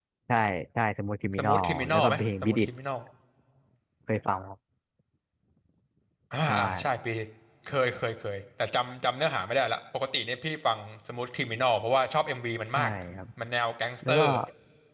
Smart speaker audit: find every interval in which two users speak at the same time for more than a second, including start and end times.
1.4-2.7

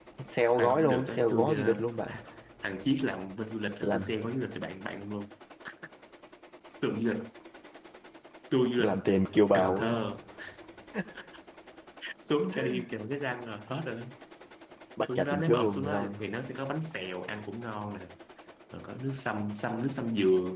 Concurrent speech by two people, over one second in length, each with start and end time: 0.6-2.2, 15.0-16.2

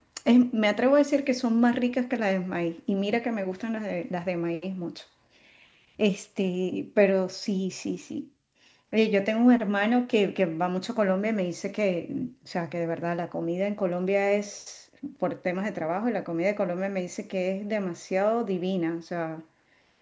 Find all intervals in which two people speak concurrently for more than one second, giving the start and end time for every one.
none

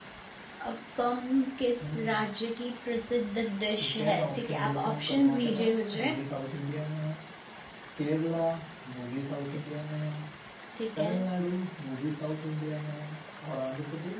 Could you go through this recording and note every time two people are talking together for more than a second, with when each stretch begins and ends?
3.8-5.6

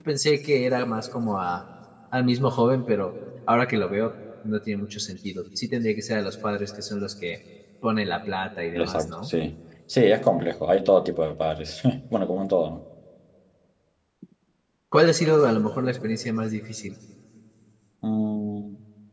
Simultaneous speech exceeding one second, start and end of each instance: none

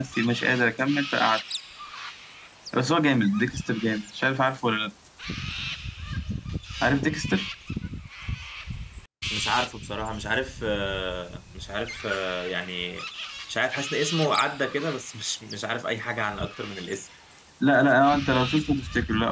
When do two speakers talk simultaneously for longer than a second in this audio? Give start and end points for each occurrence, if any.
none

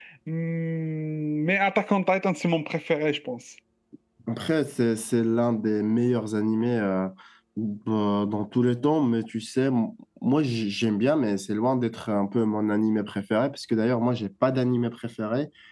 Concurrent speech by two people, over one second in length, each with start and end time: none

